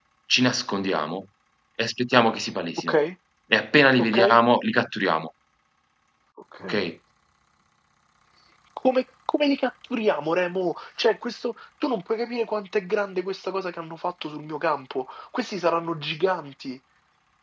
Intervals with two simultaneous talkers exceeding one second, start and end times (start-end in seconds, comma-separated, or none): none